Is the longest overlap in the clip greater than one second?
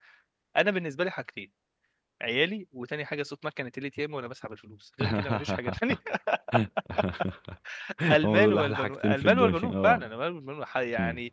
Yes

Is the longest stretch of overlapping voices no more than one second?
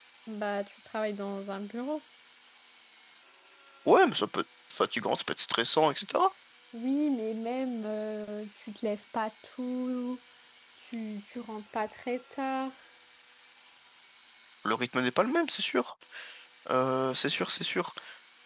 Yes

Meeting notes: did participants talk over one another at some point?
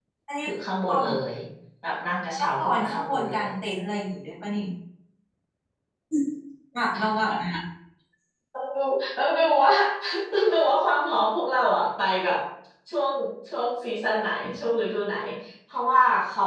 Yes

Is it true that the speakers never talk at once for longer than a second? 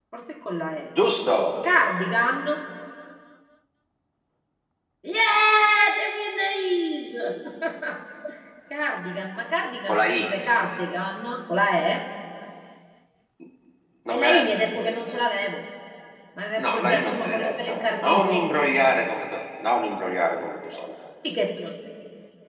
No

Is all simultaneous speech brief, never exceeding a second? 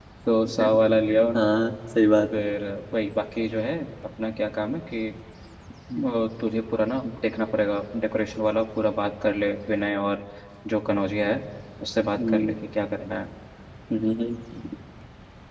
Yes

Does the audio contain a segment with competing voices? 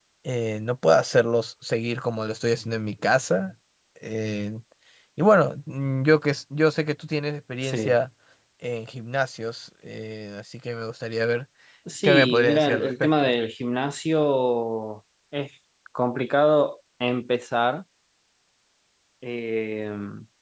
Yes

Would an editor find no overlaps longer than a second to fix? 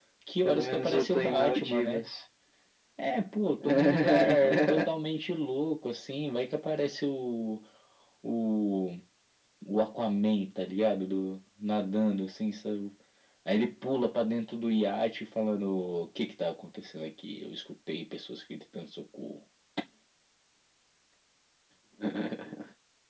No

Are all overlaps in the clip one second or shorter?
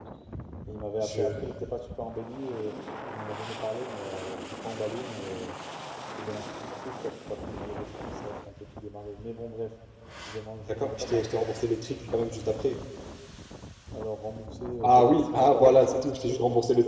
No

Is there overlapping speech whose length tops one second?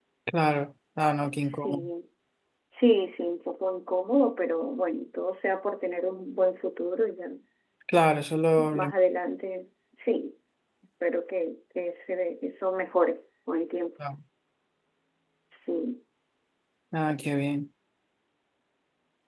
No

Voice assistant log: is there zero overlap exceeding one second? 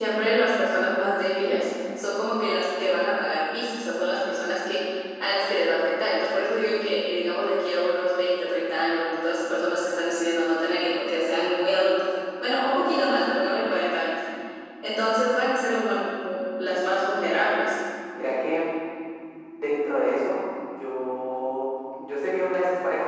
Yes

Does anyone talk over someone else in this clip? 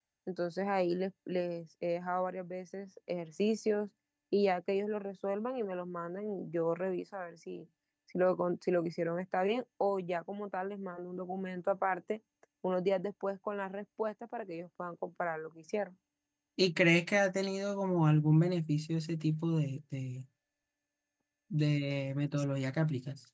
No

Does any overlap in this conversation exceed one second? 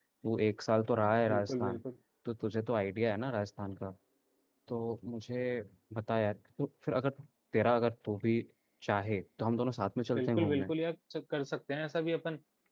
No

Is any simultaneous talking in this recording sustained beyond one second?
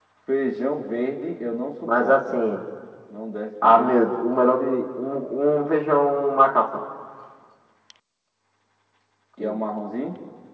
No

